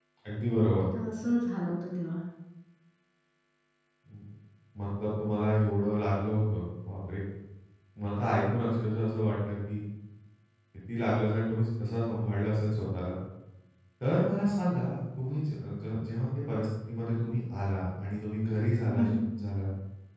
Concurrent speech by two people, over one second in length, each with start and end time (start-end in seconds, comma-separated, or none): none